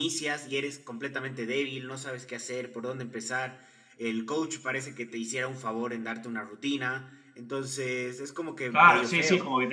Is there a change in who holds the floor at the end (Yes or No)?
Yes